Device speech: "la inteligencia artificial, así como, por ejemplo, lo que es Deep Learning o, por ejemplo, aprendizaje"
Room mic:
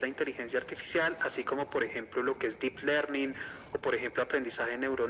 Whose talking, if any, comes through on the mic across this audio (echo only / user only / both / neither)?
echo only